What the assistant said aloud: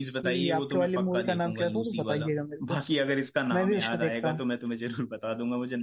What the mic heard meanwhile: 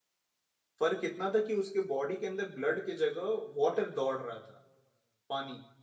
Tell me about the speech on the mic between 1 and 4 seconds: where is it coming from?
user only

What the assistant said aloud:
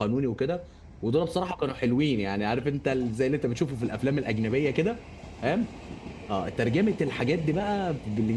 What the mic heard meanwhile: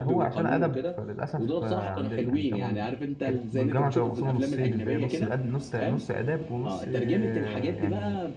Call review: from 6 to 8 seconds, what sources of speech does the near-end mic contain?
both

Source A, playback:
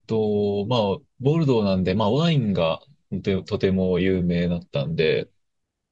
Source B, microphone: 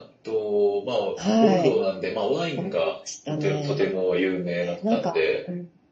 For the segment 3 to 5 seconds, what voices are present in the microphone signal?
both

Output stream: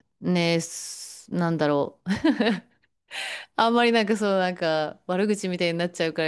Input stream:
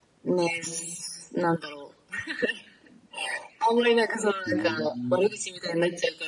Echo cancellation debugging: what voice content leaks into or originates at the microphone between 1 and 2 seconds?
echo only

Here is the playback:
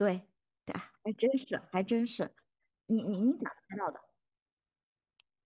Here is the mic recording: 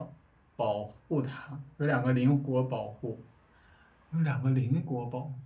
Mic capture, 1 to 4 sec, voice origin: user only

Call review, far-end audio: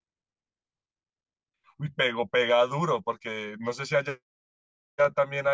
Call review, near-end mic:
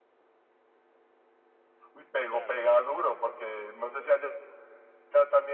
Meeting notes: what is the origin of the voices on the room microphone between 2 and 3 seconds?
both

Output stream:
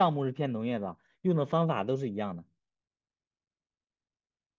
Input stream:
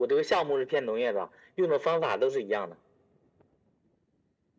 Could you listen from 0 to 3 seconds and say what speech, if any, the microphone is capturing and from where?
echo only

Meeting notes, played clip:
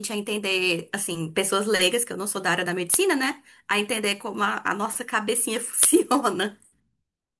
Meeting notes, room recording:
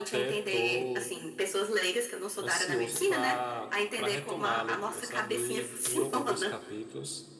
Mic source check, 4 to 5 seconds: both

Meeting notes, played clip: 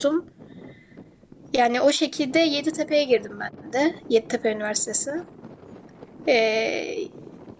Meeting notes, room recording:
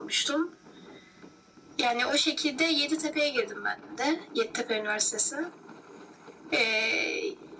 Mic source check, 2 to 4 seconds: echo only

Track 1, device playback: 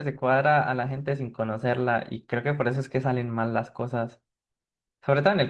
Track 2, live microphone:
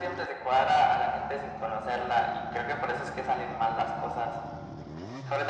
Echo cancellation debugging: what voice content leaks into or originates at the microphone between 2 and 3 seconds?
echo only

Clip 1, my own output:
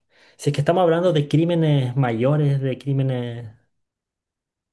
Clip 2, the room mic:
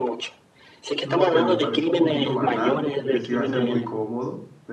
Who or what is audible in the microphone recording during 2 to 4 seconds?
both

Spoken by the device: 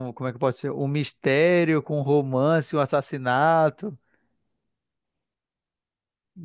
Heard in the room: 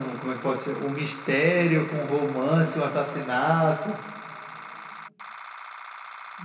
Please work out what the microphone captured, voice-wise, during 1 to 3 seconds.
echo only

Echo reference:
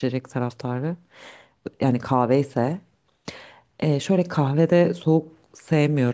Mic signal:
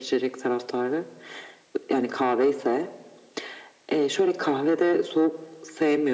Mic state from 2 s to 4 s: echo only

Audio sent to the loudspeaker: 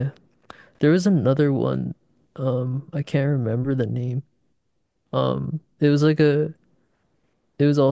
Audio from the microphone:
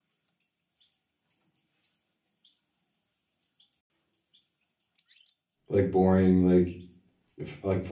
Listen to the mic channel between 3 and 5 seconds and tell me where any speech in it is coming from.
neither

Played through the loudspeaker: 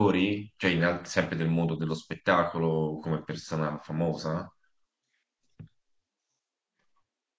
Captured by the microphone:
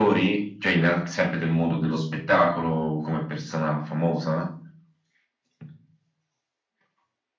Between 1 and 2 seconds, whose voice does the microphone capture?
echo only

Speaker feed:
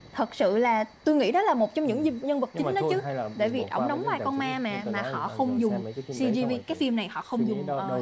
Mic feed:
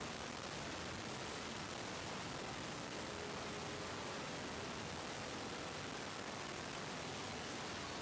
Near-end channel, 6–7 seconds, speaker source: neither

